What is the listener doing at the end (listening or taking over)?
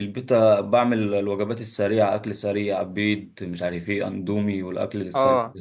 taking over